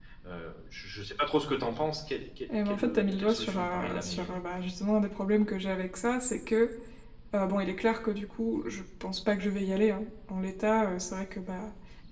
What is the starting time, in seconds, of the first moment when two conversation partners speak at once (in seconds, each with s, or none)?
2.5 s